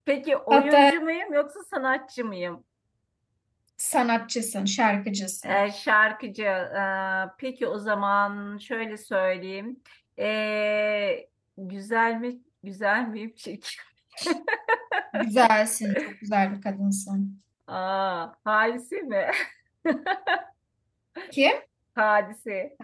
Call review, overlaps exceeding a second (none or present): none